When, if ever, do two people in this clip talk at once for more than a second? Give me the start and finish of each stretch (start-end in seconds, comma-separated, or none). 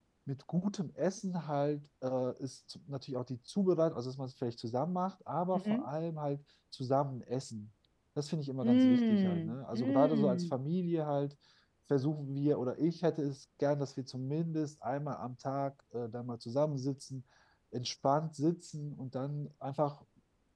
8.6-10.5